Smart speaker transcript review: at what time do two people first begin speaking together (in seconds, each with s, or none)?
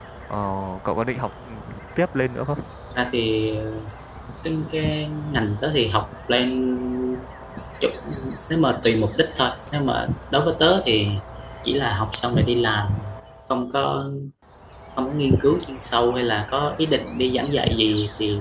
none